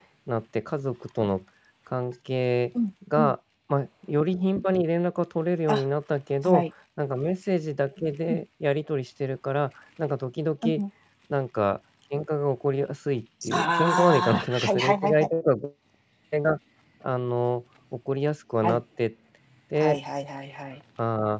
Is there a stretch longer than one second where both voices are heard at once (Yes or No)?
Yes